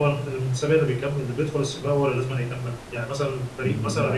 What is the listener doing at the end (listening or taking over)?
listening